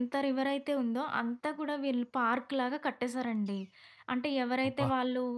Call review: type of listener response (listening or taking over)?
listening